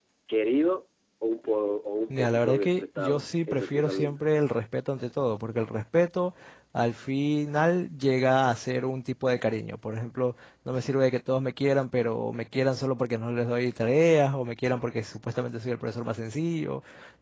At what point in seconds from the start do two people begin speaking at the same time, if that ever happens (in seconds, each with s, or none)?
2.1 s